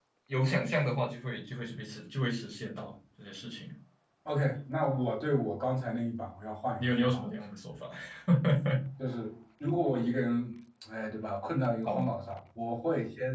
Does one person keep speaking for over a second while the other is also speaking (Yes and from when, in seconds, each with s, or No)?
No